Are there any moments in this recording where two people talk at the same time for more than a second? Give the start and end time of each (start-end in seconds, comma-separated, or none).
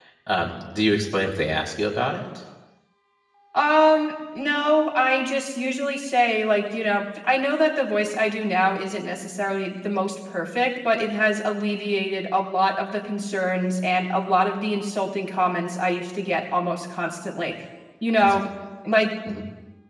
none